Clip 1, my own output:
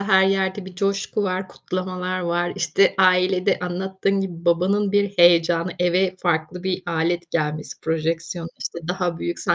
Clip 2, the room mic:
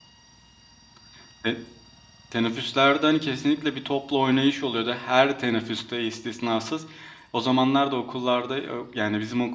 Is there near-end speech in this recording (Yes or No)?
Yes